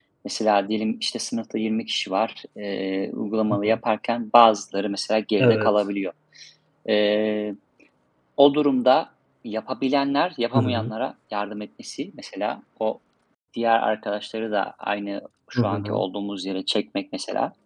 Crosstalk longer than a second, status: none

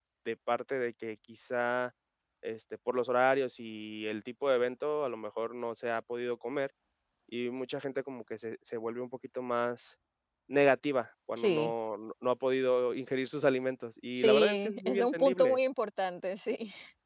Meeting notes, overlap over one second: present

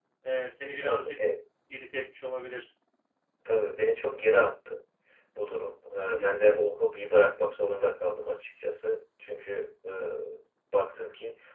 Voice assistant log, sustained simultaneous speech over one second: none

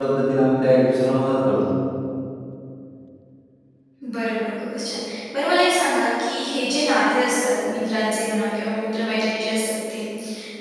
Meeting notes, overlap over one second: none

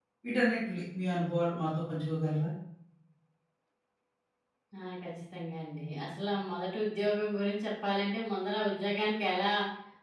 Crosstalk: none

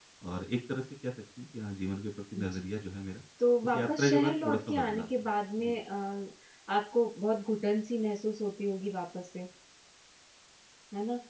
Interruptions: present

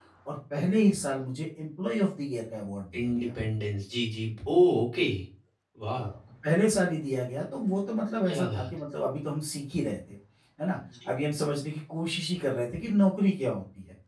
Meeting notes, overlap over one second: none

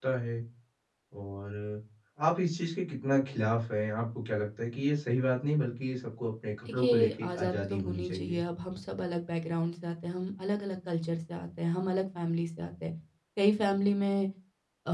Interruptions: present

